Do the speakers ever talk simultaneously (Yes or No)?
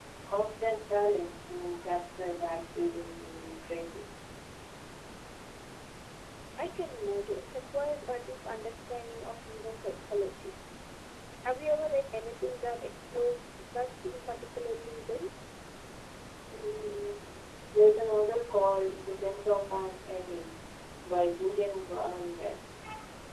No